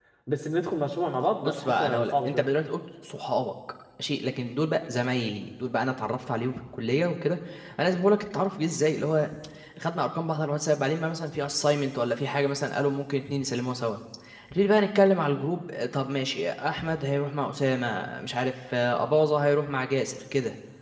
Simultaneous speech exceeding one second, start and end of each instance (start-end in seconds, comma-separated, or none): 1.2-2.5